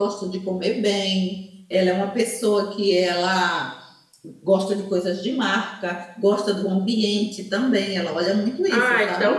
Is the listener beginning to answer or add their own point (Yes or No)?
Yes